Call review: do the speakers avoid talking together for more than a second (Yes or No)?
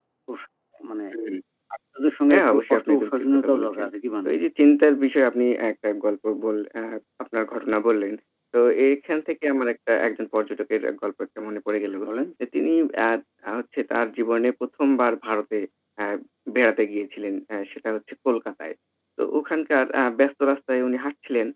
No